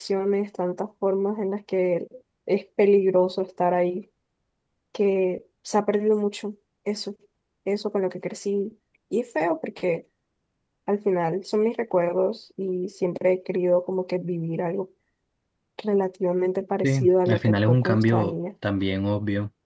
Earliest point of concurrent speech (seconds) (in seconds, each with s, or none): 16.8 s